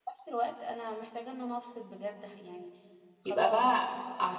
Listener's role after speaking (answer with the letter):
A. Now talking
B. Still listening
A